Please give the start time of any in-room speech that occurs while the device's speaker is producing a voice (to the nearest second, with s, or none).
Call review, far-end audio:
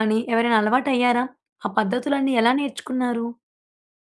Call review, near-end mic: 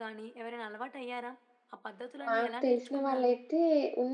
2 s